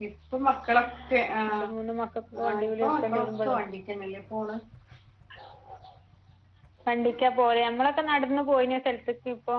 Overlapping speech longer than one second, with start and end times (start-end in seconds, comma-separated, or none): 2.4-3.6